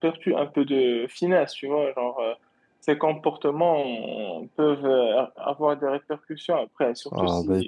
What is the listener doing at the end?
taking over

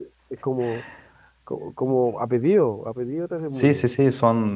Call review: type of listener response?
taking over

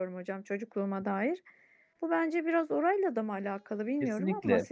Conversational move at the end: taking over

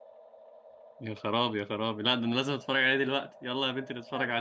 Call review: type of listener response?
taking over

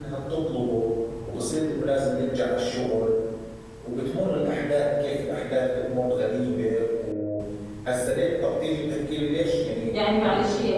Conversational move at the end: taking over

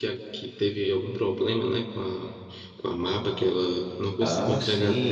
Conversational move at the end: taking over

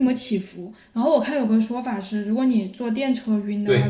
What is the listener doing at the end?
listening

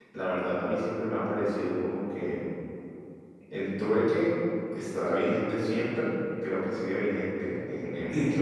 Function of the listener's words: listening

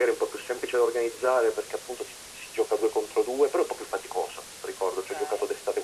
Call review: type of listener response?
listening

